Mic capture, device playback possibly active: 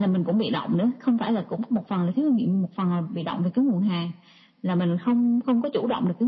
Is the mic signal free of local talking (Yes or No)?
Yes